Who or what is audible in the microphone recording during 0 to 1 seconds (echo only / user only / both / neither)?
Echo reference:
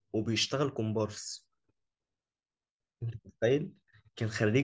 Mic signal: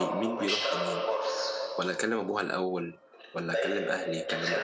both